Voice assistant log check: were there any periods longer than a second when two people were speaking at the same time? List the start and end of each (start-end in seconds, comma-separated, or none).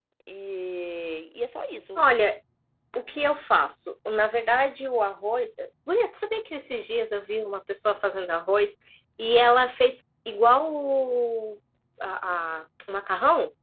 none